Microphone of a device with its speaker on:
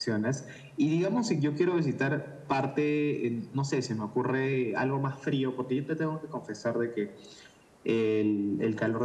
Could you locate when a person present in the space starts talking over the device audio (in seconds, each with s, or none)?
none